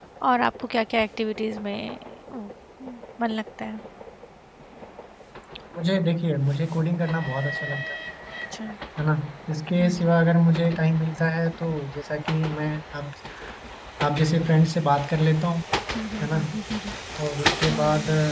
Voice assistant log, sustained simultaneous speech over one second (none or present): none